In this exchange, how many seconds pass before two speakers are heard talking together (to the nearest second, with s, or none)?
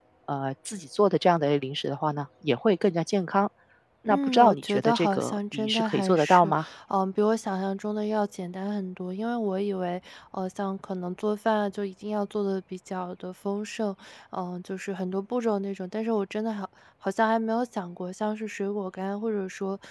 4 s